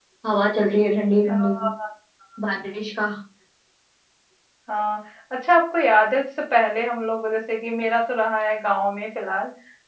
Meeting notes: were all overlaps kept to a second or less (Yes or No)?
Yes